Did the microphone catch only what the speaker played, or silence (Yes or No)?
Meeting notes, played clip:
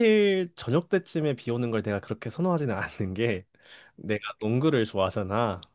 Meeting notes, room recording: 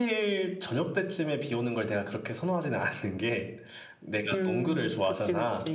No